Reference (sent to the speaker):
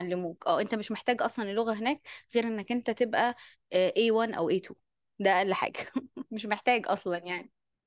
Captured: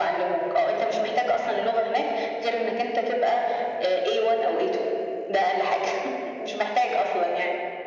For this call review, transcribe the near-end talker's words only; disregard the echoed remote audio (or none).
none